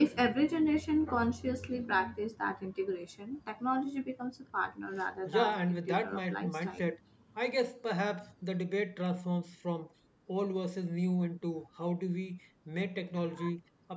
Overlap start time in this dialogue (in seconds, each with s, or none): 5.3 s